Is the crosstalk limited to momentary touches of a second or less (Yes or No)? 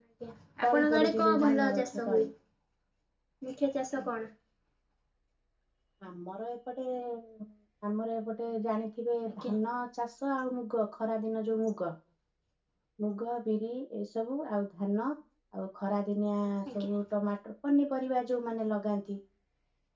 No